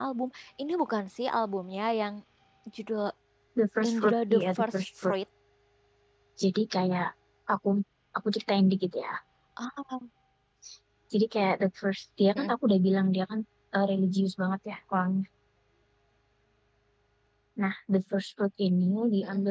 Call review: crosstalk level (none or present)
present